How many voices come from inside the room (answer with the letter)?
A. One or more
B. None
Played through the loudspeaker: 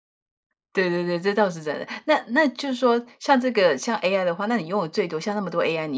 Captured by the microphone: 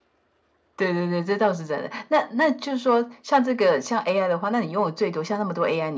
B